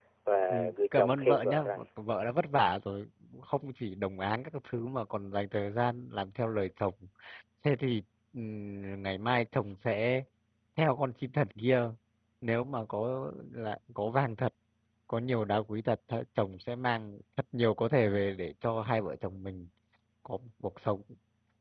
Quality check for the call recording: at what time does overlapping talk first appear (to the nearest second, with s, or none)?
1 s